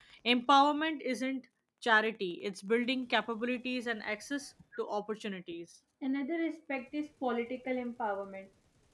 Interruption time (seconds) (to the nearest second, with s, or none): none